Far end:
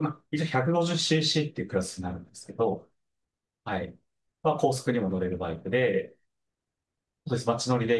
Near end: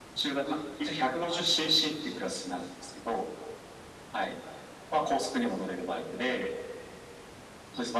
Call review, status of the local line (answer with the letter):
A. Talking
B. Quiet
B